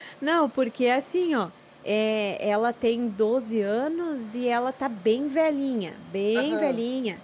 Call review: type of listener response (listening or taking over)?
listening